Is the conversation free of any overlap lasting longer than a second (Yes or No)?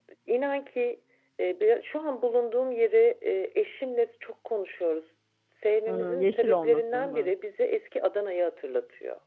No